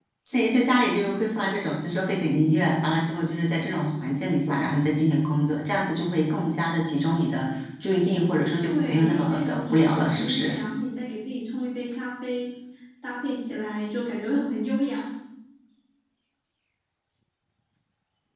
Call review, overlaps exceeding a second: present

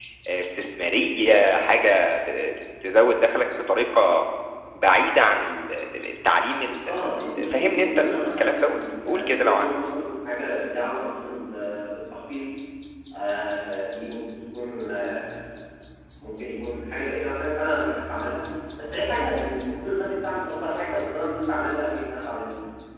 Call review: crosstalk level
present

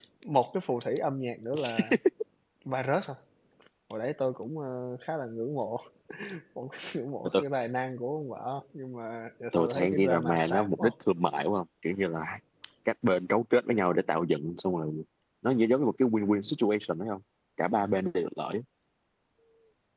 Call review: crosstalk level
present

